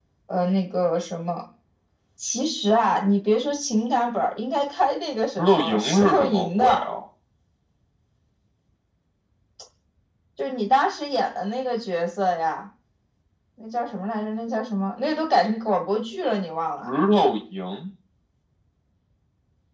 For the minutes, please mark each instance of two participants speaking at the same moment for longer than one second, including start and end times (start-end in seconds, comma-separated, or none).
5.4-6.8